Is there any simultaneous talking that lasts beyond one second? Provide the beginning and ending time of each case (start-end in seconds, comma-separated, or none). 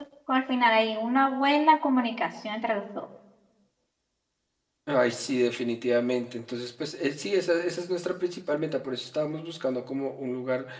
none